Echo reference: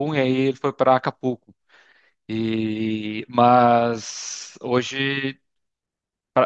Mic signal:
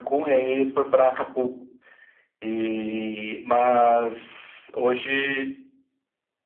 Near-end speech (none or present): none